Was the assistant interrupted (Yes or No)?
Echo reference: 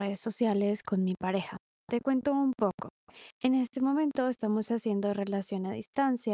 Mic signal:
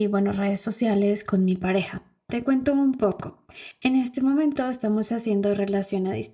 No